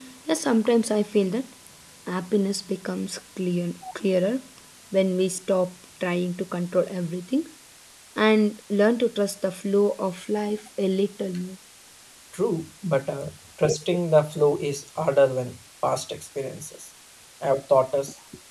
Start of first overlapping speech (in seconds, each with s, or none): none